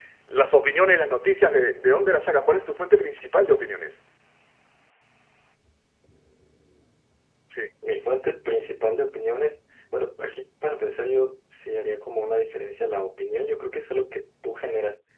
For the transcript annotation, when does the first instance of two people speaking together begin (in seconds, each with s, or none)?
none